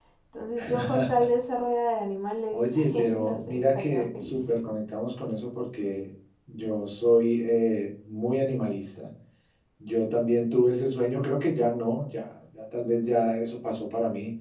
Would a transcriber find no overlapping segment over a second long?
No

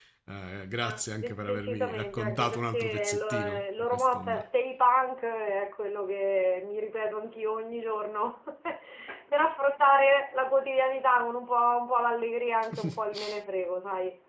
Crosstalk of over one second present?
Yes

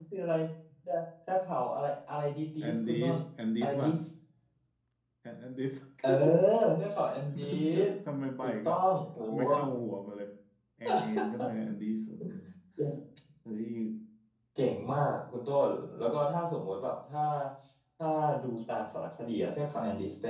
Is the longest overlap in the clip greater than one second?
No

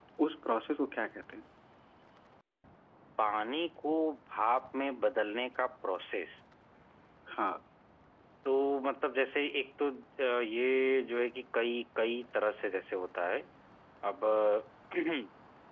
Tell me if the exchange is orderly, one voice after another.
Yes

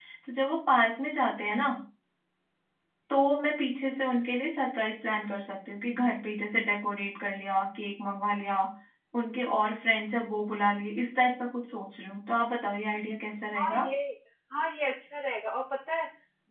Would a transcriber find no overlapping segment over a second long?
Yes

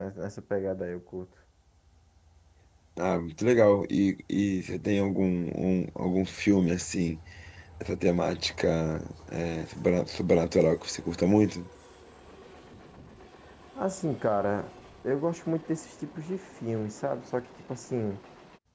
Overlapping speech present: No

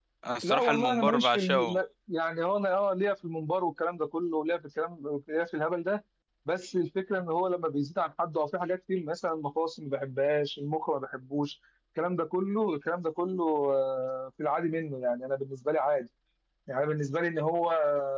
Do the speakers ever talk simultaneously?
Yes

